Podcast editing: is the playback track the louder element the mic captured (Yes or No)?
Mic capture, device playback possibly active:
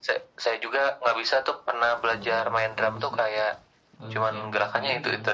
Yes